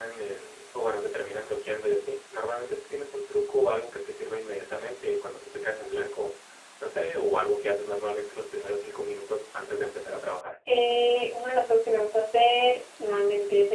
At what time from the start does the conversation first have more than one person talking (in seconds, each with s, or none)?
none